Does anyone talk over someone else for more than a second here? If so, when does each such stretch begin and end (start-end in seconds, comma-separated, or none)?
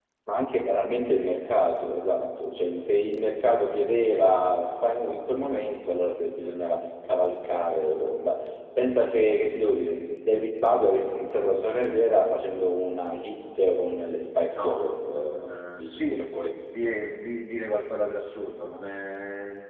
14.6-16.3